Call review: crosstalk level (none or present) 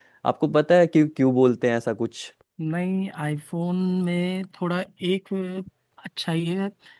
none